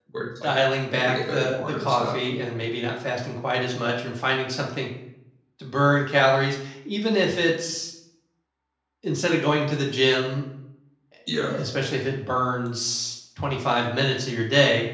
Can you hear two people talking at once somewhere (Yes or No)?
Yes